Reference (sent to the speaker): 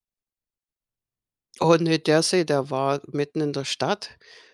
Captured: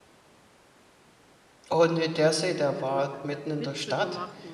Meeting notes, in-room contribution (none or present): present